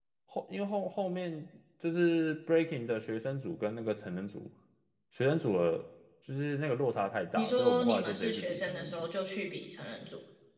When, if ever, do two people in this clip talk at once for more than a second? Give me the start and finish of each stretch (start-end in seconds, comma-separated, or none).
7.4-9.1